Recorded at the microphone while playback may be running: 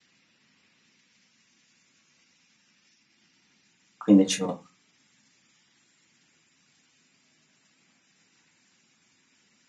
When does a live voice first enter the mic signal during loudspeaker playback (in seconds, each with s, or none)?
4.0 s